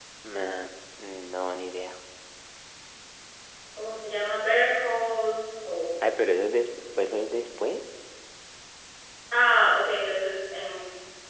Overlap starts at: none

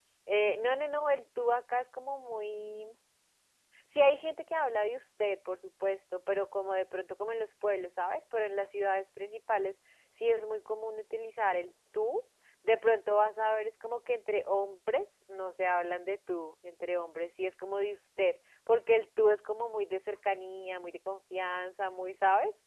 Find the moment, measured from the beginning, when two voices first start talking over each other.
none

